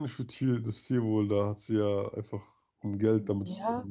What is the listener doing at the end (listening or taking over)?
taking over